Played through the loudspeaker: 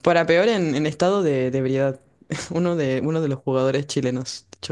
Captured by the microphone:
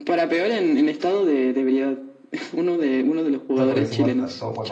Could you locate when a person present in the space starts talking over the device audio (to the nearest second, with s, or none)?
3 s